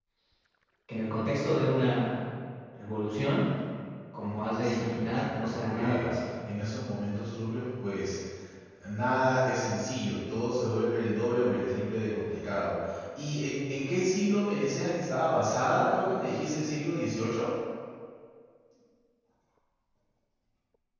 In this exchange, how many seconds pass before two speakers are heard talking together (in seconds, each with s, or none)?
4.6 s